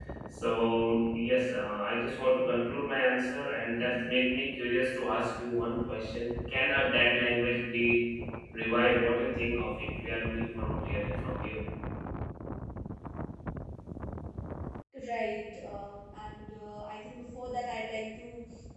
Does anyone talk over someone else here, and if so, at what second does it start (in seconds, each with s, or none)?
none